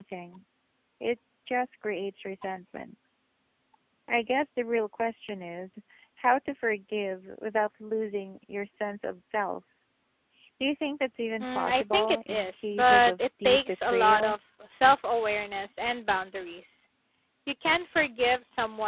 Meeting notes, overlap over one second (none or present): present